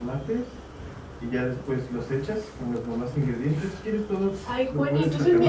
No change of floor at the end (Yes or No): No